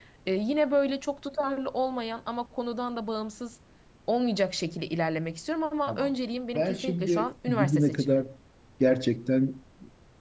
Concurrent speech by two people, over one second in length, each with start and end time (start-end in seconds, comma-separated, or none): 6.6-8.2